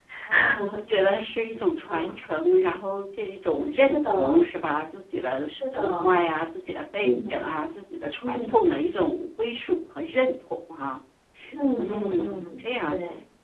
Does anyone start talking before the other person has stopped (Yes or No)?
Yes